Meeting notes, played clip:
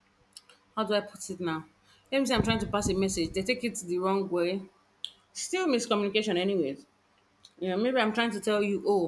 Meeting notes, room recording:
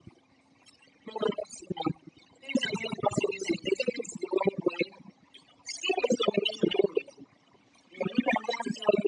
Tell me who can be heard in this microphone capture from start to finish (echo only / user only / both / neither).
echo only